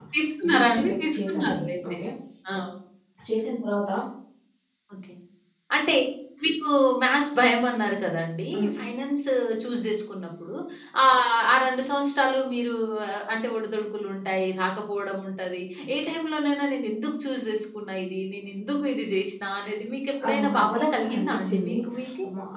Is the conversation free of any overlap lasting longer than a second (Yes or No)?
No